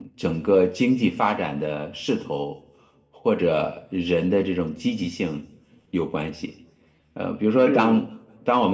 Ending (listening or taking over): listening